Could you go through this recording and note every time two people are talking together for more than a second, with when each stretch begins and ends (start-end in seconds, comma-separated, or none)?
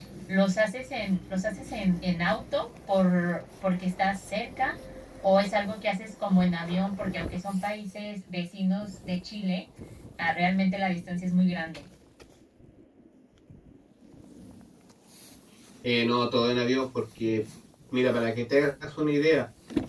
none